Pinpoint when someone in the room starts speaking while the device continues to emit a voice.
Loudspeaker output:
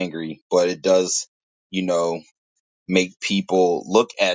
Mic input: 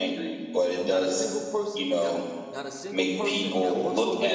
0.8 s

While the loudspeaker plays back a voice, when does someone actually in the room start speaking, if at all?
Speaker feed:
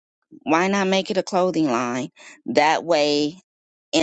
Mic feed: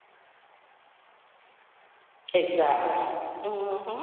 2.3 s

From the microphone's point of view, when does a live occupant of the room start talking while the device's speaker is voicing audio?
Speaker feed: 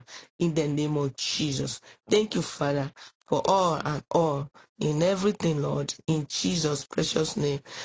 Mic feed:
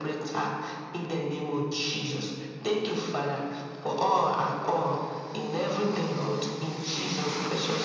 none

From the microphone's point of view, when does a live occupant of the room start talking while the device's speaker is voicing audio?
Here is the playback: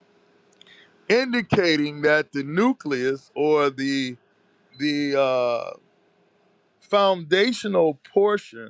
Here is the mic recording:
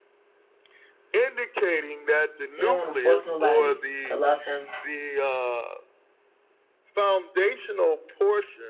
2.5 s

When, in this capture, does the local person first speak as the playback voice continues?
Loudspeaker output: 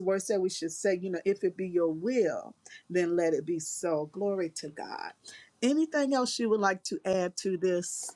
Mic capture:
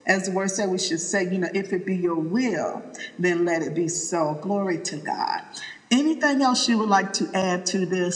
none

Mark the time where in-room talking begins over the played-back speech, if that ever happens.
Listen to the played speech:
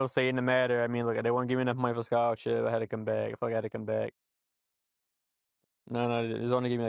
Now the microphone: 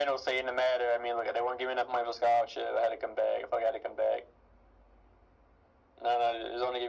none

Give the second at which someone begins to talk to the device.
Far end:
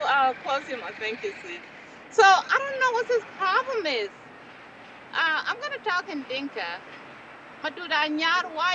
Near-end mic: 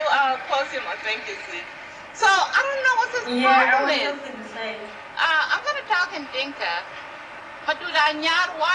3.2 s

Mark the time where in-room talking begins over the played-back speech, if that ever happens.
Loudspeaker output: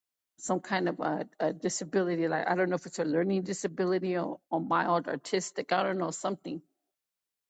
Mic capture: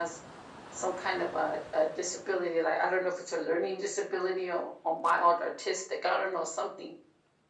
none

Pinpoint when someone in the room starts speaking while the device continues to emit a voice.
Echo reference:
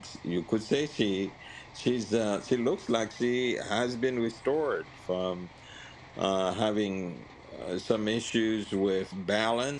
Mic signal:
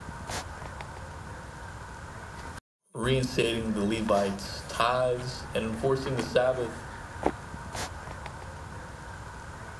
2.9 s

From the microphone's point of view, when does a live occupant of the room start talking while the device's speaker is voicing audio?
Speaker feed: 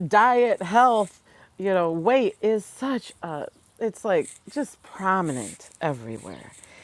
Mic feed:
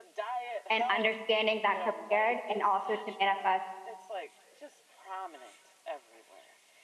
0.7 s

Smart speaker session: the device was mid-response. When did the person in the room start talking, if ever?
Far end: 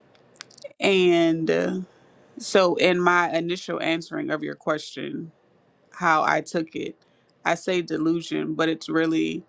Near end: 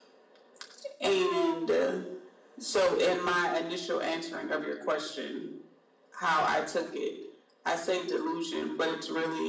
none

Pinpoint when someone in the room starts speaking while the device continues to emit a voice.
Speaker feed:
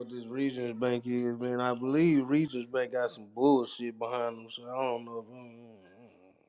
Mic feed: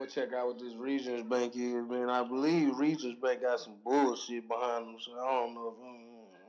none

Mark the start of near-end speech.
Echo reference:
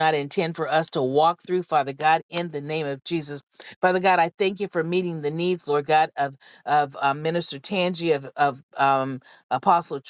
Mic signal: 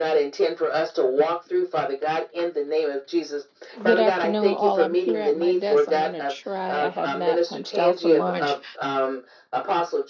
3.8 s

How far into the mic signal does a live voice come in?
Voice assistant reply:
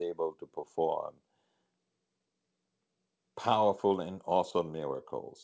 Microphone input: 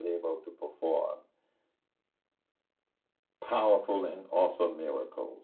none

